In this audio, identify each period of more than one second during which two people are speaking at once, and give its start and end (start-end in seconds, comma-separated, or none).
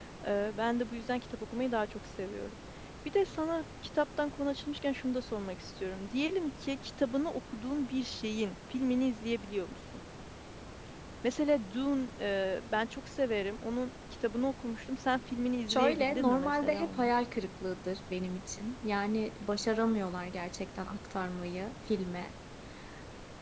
15.7-17.1